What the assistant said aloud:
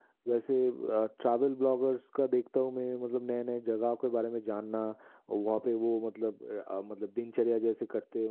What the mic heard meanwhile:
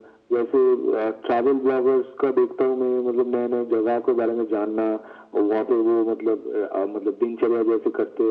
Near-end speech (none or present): none